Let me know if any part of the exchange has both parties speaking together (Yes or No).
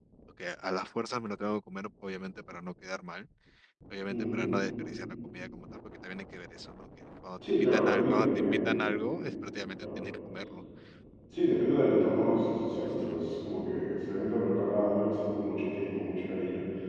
Yes